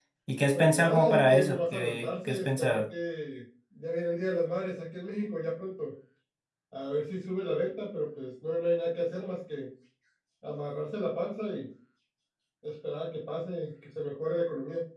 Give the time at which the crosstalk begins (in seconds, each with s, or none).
0.5 s